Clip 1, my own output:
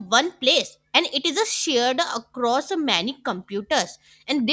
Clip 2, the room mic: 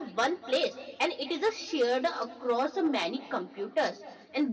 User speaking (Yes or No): No